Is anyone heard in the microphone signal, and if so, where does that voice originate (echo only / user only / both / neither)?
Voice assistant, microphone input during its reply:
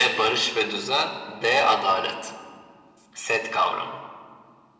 echo only